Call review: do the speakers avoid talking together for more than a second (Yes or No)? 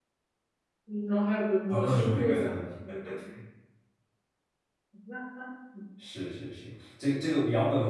No